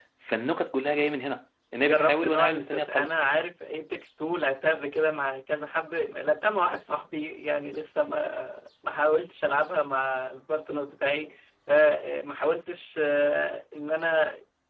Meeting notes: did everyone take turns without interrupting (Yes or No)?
No